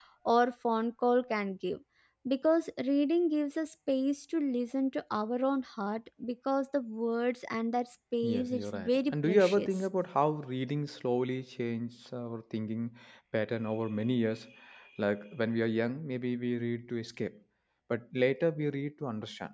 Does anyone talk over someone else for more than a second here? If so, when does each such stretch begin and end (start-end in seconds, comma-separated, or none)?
8.2-9.7